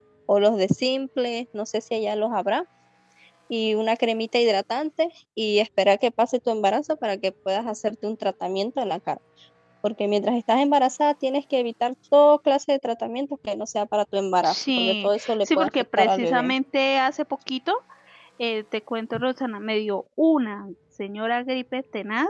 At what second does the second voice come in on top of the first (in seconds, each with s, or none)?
14.4 s